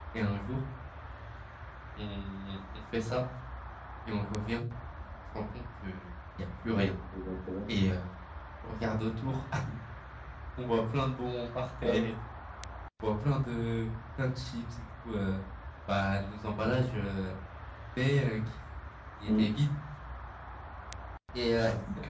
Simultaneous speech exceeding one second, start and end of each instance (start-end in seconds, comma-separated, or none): none